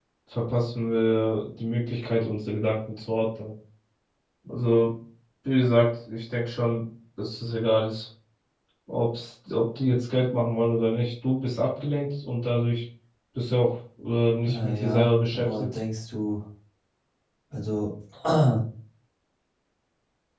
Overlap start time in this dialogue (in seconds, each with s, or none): 14.4 s